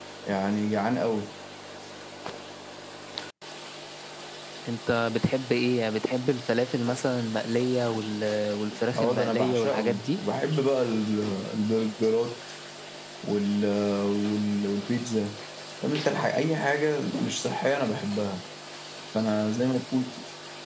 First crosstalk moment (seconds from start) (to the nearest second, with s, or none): 9 s